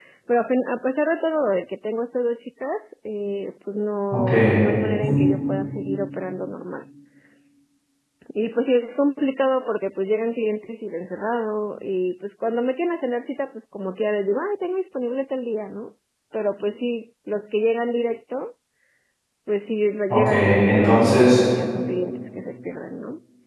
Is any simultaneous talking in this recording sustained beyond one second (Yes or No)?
Yes